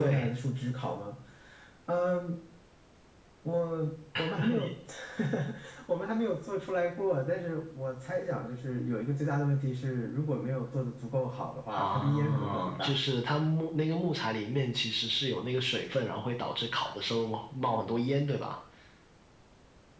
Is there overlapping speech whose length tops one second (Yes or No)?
Yes